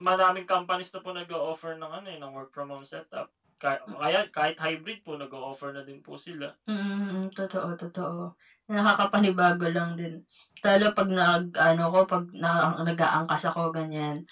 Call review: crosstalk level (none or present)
none